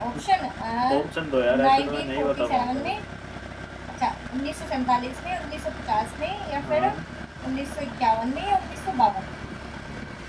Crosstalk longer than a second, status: present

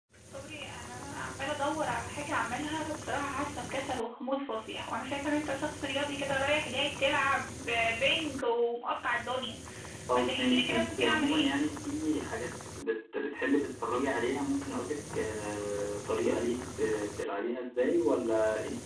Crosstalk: present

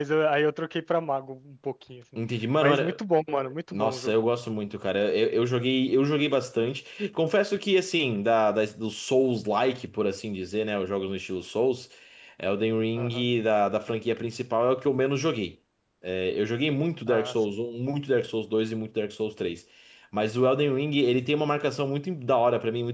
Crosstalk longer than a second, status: none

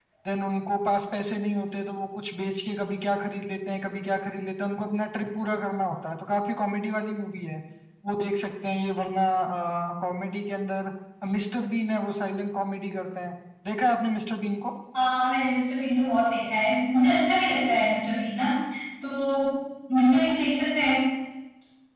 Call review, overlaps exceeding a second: none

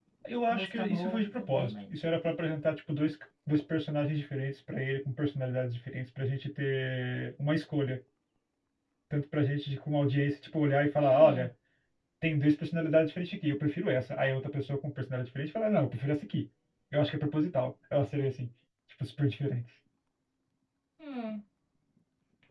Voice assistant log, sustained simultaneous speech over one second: present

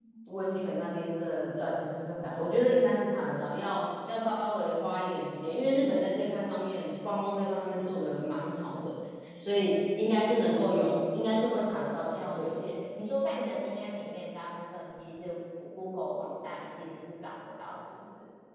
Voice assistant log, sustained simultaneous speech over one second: none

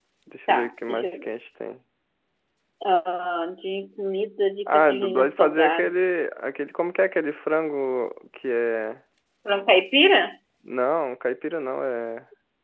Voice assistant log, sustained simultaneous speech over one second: present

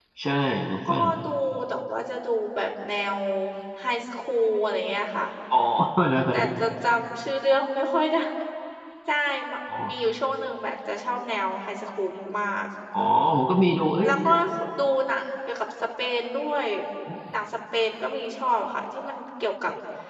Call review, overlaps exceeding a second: none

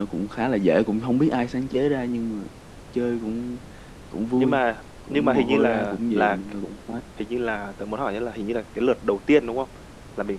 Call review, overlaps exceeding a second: present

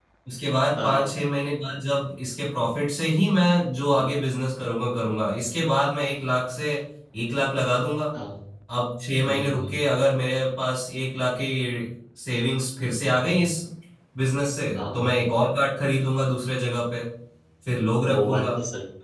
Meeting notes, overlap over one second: none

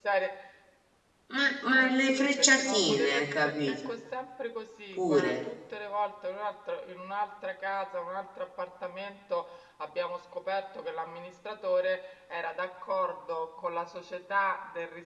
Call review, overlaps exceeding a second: present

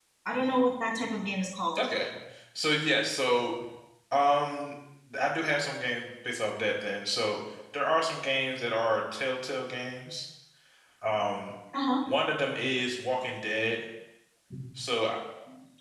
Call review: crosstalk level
none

